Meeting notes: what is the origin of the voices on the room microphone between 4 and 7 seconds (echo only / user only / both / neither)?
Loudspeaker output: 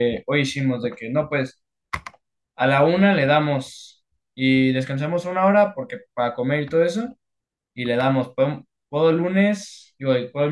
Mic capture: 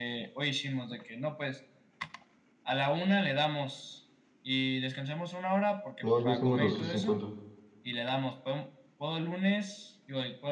both